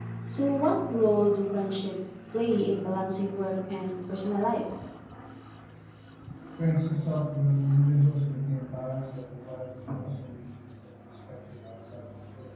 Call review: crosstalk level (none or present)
none